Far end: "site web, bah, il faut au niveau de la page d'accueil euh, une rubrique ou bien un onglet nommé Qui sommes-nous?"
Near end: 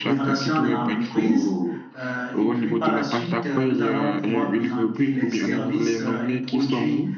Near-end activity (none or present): present